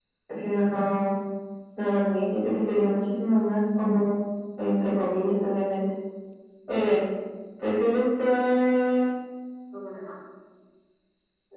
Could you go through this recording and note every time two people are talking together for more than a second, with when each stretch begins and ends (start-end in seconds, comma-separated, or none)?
none